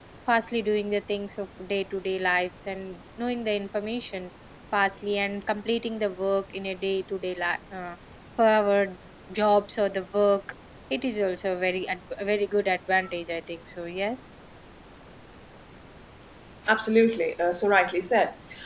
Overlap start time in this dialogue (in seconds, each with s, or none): none